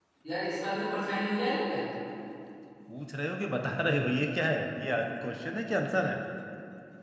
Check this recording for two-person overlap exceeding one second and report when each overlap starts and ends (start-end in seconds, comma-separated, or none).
none